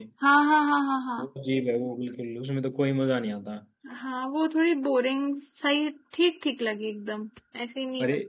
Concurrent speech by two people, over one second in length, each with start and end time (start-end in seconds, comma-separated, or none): none